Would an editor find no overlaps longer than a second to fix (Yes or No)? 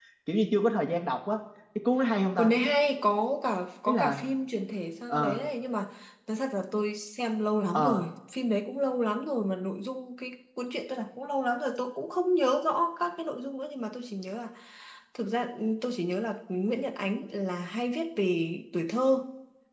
Yes